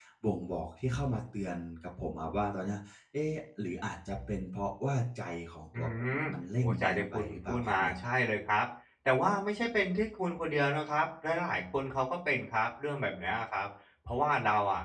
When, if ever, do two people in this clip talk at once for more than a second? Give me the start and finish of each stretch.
6.6-7.9

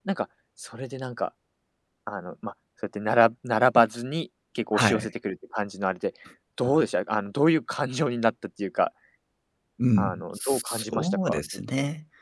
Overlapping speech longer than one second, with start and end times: 10.0-11.4

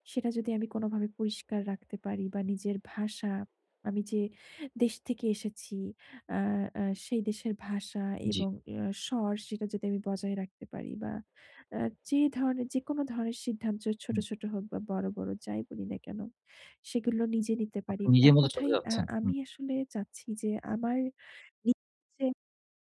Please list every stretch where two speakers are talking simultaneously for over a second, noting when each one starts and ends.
18.1-19.3

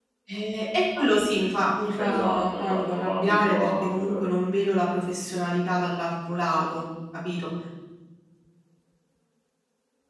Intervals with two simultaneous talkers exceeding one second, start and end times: 2.0-4.2

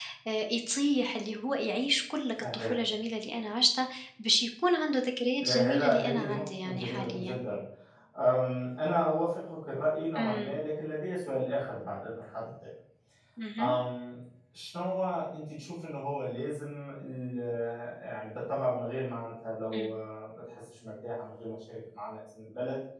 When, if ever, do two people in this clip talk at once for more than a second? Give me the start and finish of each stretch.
5.4-7.4

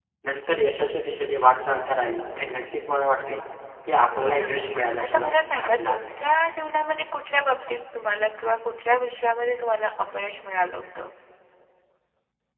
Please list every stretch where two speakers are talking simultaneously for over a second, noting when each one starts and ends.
4.2-6.2

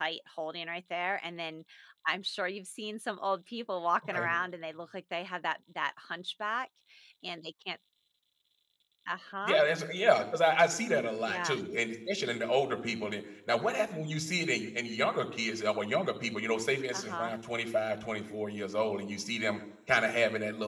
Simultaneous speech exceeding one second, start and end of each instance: none

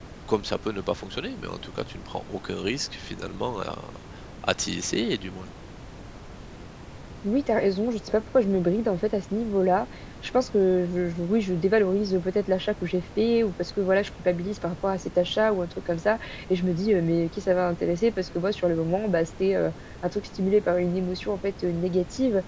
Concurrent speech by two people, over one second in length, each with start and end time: none

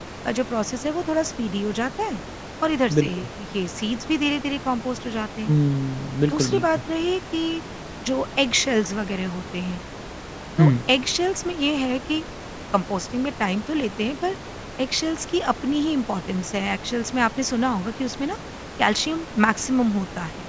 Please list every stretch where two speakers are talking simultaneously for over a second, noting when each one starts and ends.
none

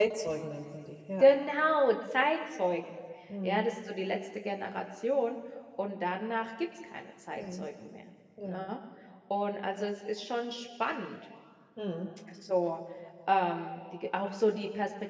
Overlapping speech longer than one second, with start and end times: none

